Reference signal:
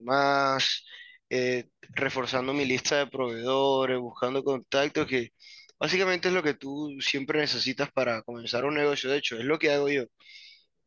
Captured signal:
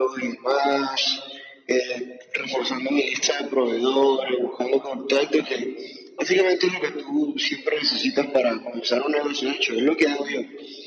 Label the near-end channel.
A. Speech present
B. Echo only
B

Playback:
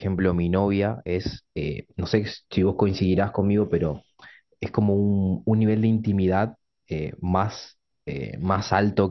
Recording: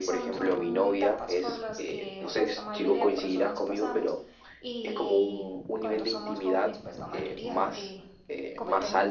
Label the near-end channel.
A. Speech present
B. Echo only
A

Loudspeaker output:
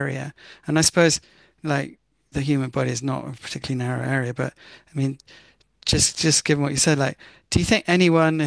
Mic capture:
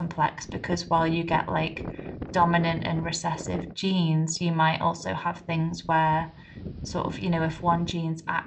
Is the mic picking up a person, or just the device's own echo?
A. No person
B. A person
B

